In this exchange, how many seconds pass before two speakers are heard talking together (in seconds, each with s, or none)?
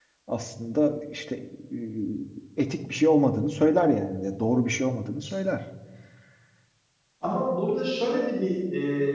none